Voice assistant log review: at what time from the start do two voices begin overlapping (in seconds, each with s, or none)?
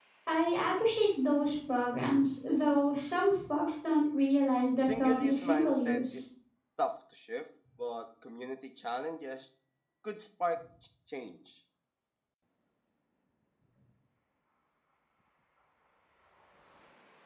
4.8 s